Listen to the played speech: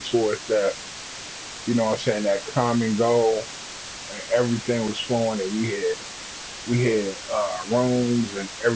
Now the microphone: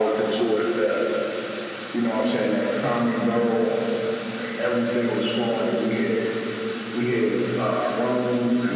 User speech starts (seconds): none

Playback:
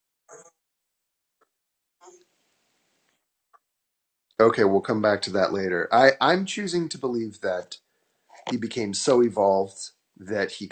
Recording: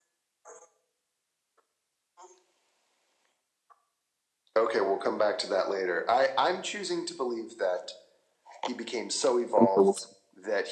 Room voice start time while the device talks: 9.6 s

